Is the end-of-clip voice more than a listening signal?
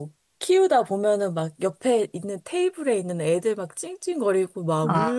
No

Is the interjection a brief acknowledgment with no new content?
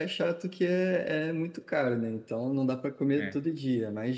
Yes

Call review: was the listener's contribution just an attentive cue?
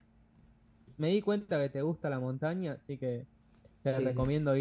Yes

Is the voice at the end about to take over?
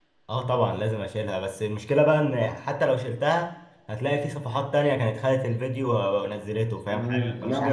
Yes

